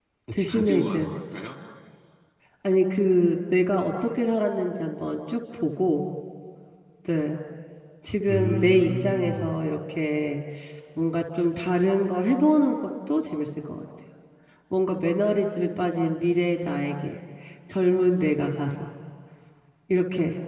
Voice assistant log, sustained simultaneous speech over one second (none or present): present